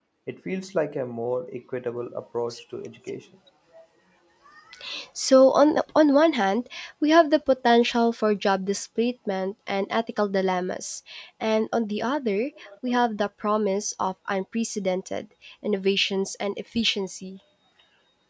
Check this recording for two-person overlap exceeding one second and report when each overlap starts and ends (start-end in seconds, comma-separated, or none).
none